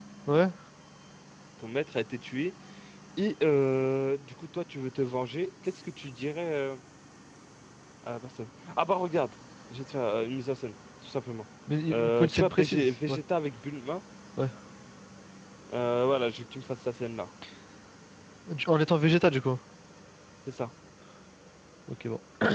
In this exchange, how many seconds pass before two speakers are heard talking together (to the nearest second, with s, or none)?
12 s